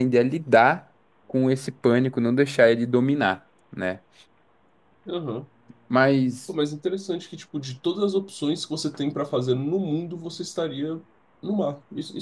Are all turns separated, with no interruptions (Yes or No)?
Yes